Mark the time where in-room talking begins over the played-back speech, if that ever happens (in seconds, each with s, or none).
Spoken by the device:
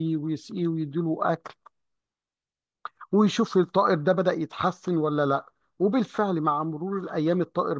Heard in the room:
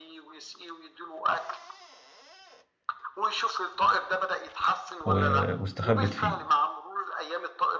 5.0 s